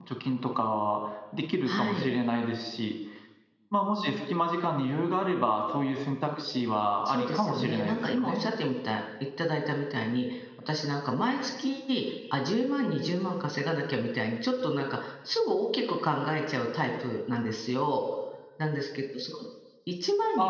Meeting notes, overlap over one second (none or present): present